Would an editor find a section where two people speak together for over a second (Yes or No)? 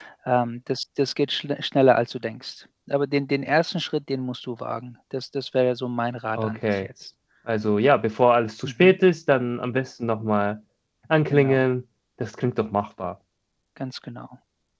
No